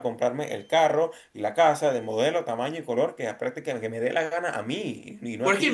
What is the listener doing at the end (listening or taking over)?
taking over